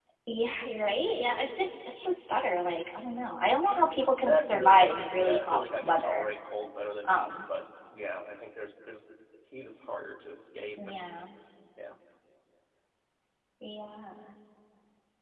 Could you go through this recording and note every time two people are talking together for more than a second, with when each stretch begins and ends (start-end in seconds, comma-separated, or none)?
4.2-6.2